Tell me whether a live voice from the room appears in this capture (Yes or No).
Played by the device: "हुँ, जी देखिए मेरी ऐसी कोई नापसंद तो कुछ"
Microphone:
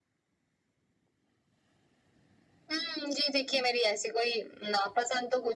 No